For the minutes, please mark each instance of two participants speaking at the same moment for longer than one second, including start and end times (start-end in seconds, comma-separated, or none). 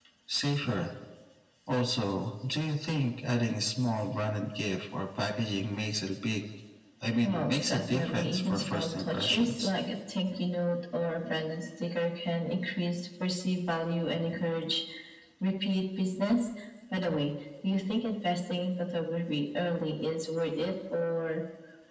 7.2-9.7